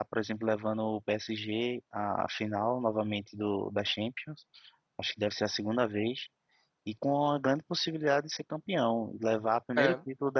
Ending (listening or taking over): listening